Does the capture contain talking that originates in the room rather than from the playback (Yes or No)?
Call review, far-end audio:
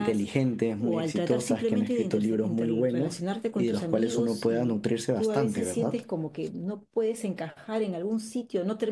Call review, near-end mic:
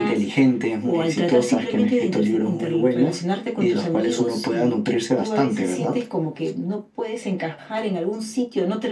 No